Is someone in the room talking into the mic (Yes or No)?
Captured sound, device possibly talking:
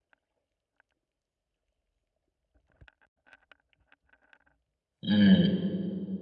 Yes